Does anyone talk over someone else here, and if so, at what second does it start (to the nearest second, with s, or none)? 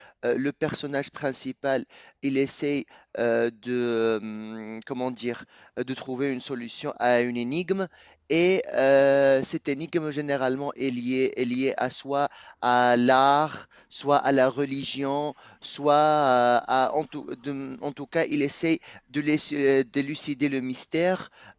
none